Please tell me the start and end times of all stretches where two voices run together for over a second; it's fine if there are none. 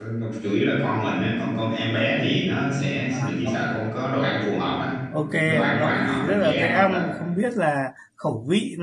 5.2-7.0

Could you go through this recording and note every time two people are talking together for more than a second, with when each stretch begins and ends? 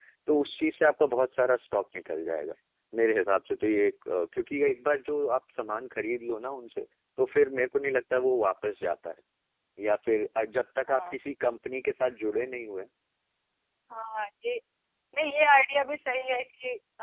none

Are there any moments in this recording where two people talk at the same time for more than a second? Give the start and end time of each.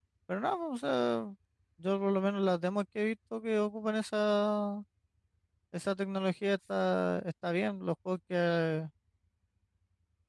none

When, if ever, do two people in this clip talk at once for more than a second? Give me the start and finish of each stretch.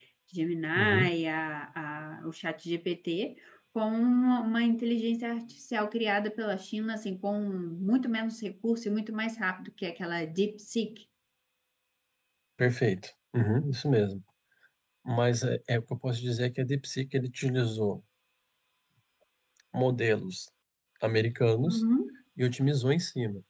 none

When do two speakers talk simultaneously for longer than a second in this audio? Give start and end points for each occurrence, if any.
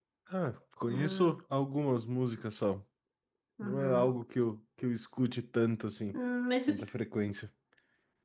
none

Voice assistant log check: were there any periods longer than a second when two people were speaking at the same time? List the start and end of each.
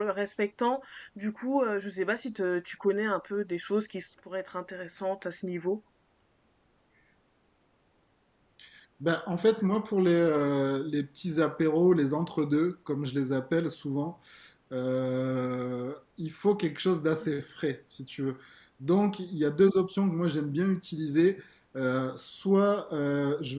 none

